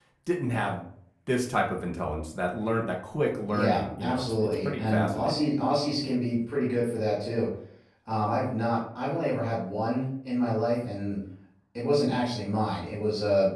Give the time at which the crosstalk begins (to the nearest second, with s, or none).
3 s